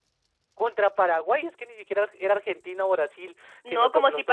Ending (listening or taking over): taking over